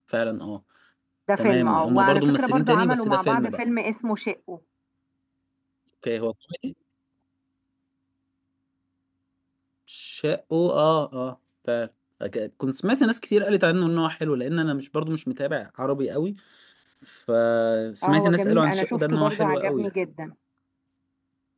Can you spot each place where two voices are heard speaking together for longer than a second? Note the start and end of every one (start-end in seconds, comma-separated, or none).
1.4-3.6, 18.0-19.9